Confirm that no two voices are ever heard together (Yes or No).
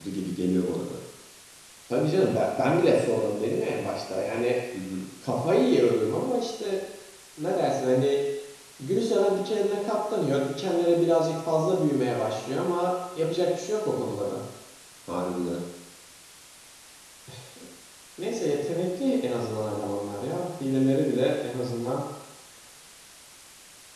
Yes